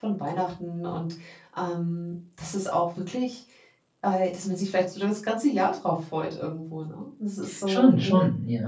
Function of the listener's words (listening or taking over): taking over